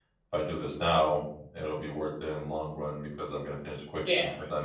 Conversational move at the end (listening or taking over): taking over